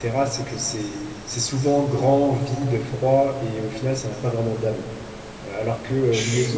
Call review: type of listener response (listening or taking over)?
listening